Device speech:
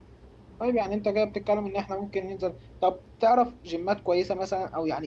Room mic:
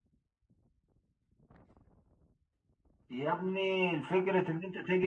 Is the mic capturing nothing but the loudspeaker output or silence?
No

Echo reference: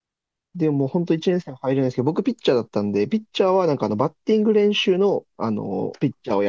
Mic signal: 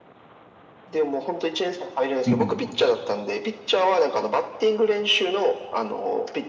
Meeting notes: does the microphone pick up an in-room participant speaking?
Yes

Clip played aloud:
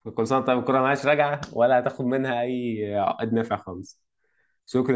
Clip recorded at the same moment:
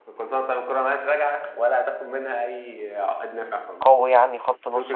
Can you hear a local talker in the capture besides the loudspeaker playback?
Yes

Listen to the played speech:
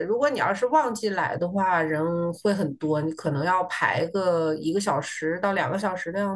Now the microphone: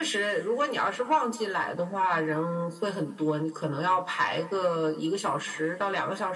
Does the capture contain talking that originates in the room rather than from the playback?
No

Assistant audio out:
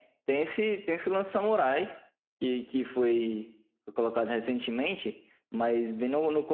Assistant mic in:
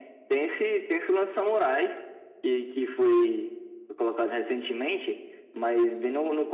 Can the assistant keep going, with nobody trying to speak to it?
Yes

